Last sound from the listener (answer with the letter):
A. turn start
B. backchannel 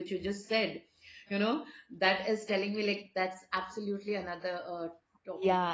A